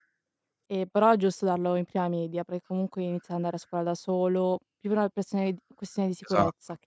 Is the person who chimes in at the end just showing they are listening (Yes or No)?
No